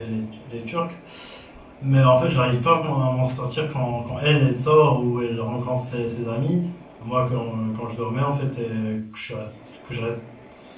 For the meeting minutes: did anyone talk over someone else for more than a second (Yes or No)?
No